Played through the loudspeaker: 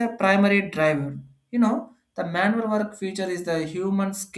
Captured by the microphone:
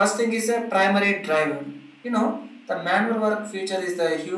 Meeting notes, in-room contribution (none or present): none